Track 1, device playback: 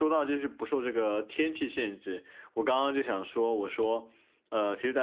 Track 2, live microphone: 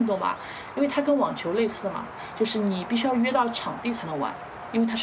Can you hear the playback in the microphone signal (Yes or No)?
No